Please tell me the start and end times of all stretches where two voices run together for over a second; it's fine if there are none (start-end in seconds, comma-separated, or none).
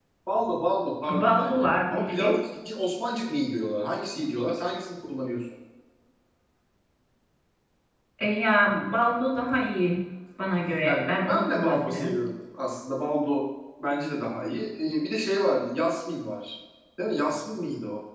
1.1-2.4, 10.8-12.1